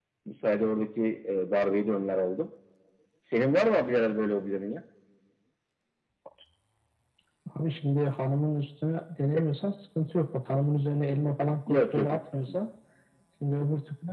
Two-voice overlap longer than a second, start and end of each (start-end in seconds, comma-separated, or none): none